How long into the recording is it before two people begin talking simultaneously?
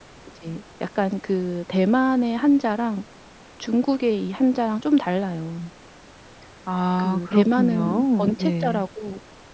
7.0 s

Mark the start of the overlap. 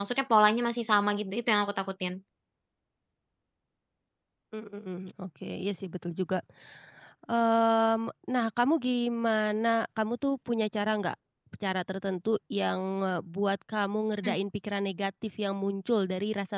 none

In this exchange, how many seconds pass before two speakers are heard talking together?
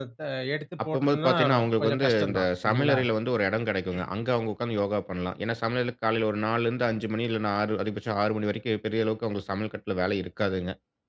0.8 s

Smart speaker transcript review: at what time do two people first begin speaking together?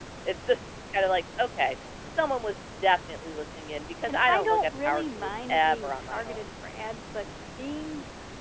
4.1 s

